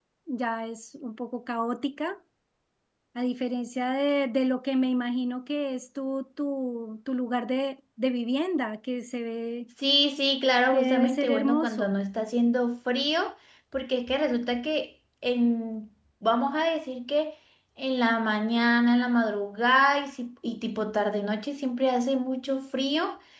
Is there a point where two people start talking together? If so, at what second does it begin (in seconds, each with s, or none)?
10.7 s